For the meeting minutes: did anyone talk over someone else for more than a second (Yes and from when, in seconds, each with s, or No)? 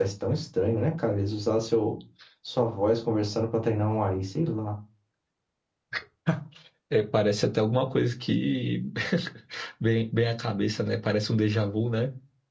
No